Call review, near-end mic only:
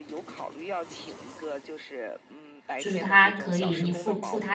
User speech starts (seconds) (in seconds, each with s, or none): 2.8 s